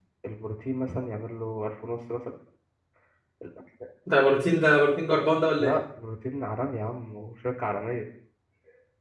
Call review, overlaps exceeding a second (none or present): none